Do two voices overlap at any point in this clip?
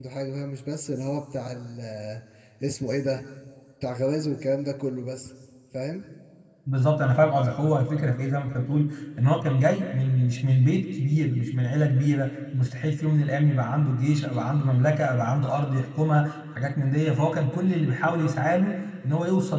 No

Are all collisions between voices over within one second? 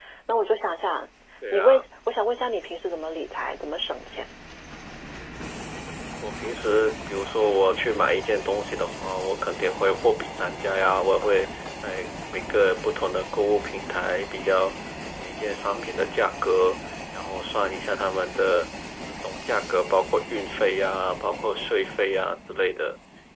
Yes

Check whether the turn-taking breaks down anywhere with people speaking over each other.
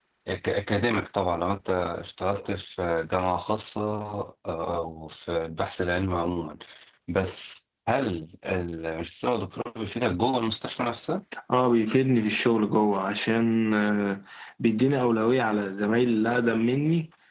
No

